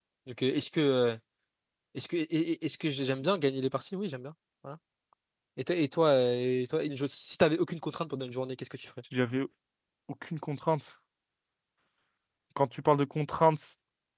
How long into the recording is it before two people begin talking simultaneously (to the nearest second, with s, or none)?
none